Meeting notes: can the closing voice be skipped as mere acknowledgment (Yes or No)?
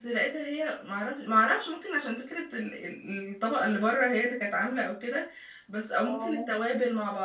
Yes